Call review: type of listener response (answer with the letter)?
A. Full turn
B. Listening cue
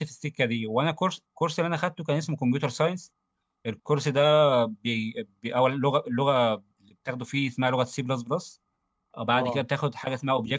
B